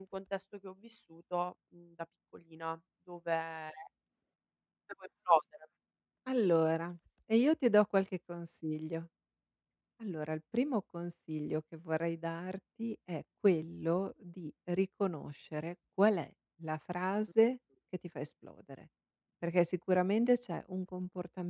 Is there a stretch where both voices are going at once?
No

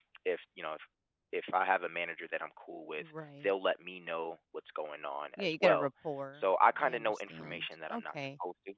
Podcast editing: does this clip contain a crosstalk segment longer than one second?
Yes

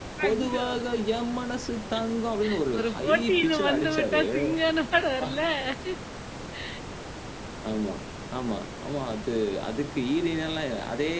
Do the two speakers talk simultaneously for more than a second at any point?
Yes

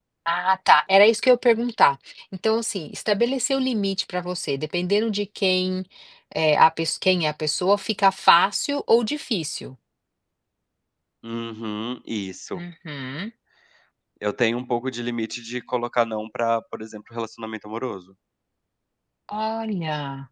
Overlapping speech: No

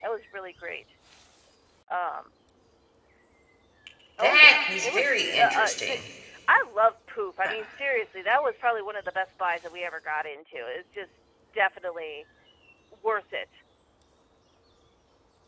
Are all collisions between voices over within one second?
No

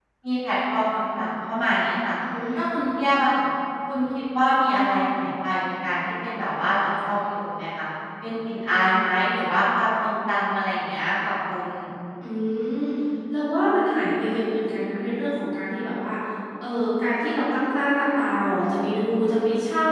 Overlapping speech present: No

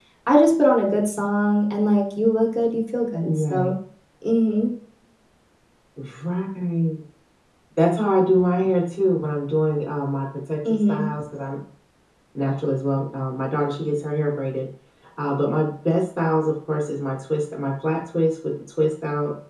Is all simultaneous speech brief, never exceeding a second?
Yes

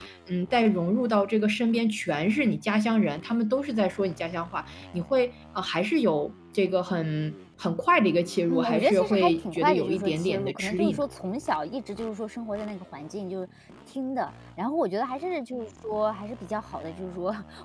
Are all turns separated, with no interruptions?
No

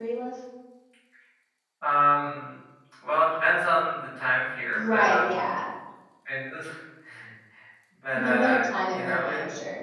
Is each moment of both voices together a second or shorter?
No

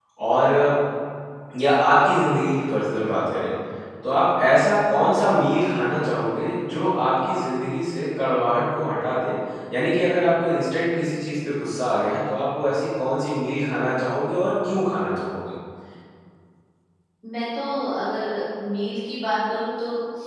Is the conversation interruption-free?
Yes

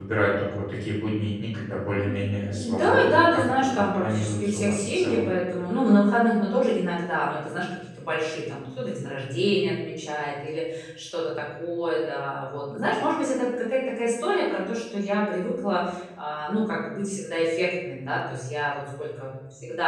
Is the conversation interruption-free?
No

